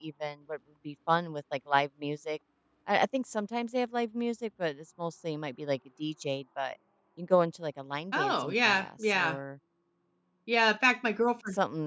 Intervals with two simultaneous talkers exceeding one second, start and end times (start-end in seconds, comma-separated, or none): 8.1-9.4